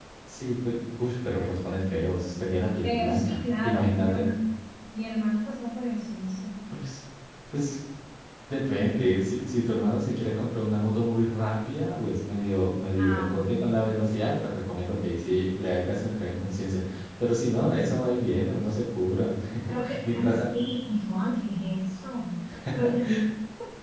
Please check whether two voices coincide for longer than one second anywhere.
Yes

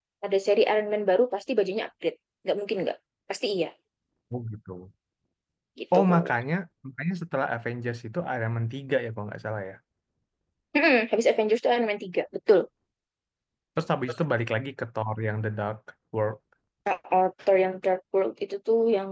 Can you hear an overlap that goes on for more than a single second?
No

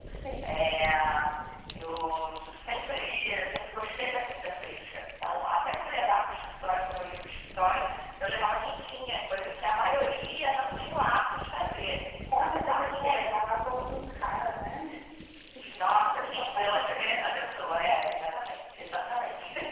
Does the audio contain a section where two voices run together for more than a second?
Yes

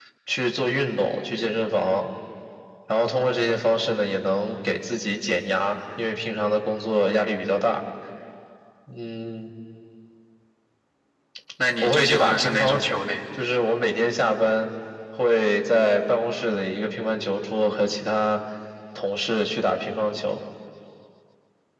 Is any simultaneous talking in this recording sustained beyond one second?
Yes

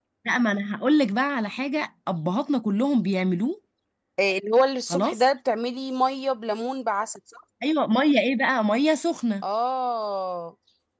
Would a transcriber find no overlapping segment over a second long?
Yes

